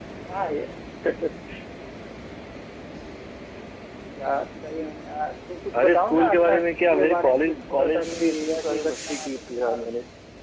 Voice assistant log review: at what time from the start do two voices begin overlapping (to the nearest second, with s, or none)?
6 s